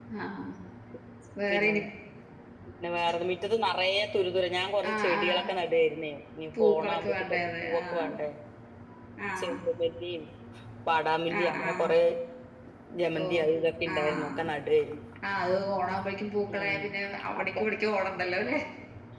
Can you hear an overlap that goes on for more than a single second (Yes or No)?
Yes